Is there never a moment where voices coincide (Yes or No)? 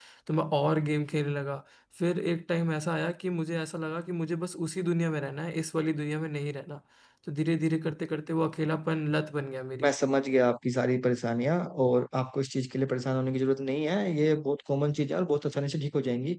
Yes